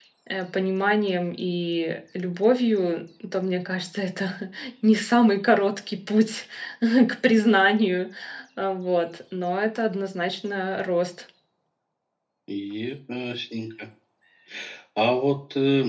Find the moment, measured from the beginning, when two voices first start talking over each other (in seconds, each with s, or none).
none